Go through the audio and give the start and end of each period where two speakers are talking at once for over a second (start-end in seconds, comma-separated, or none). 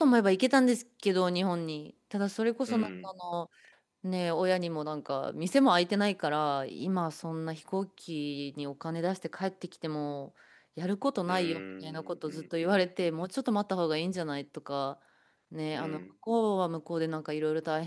11.3-13.1